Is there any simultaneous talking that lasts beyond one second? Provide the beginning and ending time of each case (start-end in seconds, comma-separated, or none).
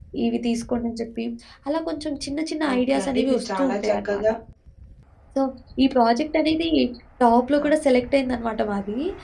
2.8-4.3